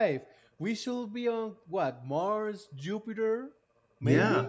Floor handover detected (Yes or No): Yes